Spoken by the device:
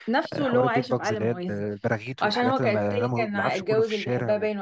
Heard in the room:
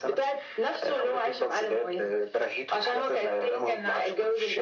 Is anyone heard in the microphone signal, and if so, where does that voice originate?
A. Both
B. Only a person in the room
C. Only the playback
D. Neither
C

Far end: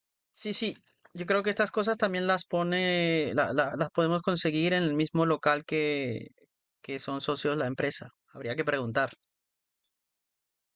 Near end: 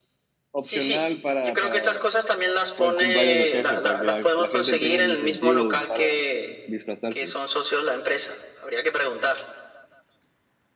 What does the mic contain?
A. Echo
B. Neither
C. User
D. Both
D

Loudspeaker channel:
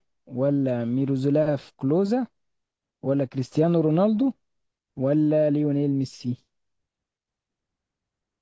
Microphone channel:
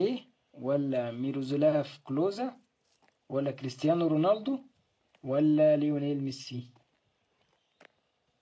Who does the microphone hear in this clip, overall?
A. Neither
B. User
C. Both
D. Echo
D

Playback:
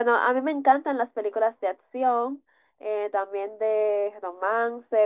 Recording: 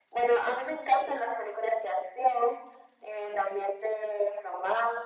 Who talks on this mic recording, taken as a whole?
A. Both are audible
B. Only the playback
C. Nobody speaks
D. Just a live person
B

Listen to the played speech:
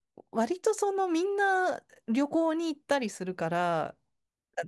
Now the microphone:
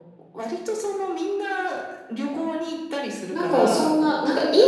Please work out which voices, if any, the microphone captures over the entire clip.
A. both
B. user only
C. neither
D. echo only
A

